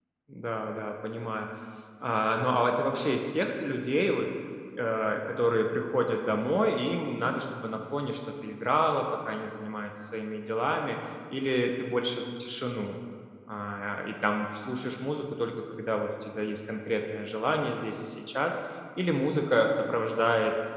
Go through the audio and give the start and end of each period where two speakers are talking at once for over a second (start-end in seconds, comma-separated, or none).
none